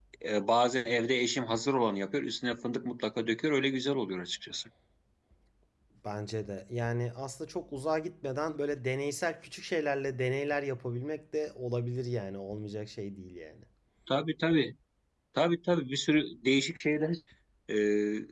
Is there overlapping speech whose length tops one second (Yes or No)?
No